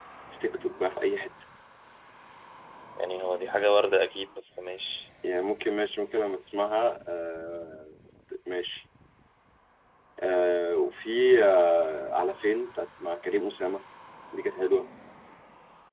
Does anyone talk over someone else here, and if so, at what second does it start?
none

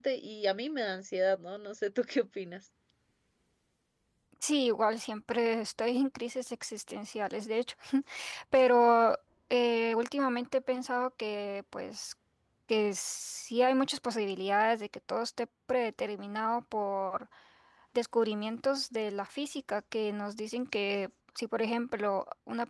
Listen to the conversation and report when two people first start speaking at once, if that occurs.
none

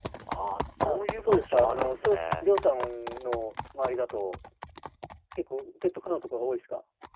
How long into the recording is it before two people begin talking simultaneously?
0.8 s

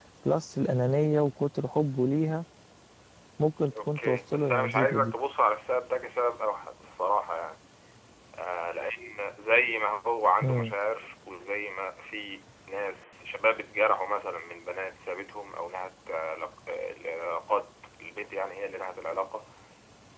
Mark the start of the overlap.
3.8 s

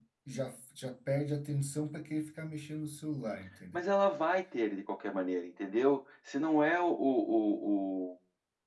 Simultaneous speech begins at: none

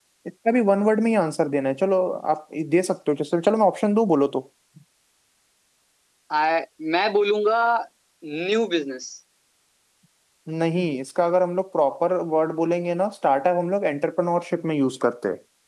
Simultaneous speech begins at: none

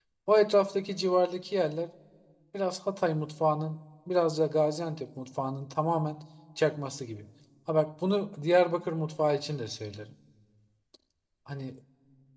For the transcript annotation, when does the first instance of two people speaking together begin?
none

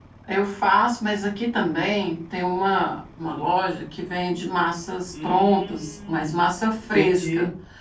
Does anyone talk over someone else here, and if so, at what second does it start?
5.1 s

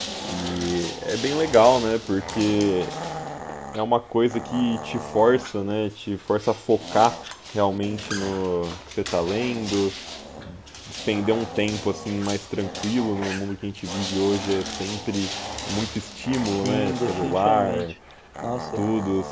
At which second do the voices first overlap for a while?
16.6 s

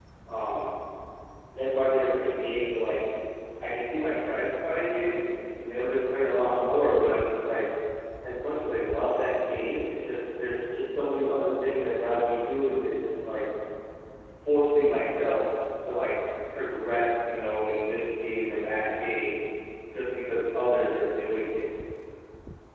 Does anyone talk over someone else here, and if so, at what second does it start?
none

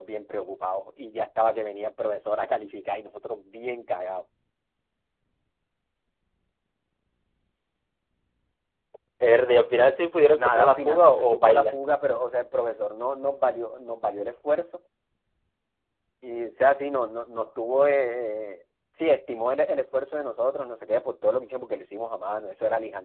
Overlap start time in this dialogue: 10.3 s

